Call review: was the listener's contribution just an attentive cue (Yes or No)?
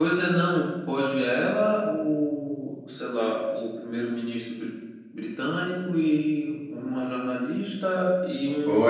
No